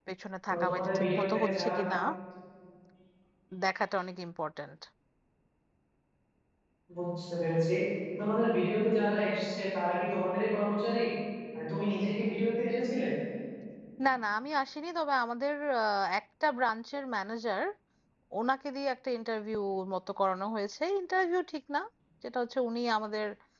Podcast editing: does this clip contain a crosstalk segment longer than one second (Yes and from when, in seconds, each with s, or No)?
Yes, from 0.5 s